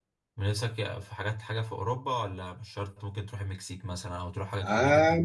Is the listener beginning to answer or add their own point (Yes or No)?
Yes